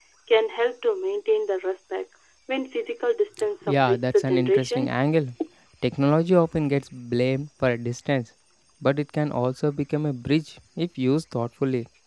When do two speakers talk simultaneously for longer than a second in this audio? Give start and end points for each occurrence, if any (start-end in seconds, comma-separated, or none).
3.7-5.0